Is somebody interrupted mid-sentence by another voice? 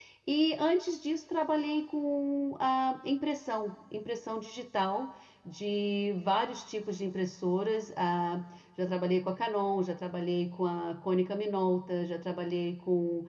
No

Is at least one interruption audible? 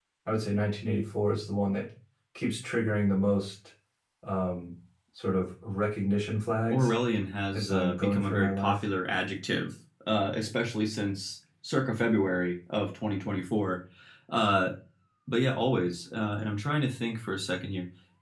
Yes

